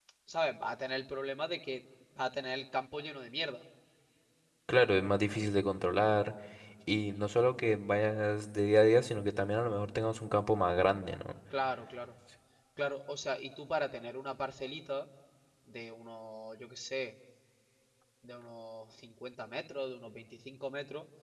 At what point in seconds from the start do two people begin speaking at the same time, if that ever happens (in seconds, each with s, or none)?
none